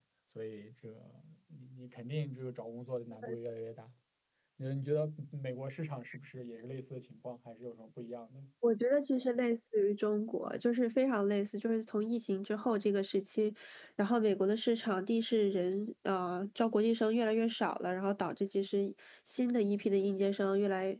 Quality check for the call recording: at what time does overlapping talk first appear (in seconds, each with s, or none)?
none